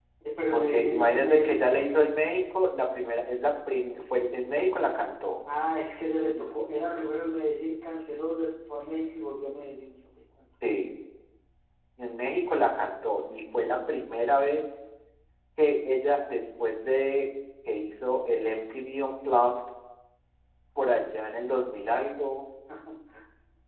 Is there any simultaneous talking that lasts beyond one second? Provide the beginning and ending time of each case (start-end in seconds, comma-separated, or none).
0.5-1.9